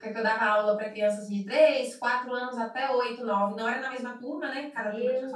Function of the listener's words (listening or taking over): taking over